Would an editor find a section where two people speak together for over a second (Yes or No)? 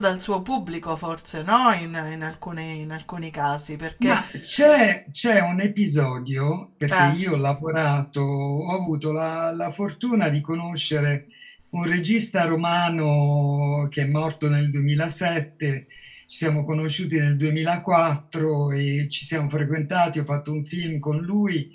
No